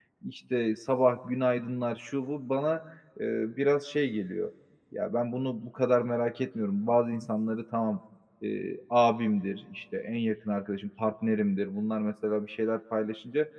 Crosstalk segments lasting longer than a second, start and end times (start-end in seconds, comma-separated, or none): none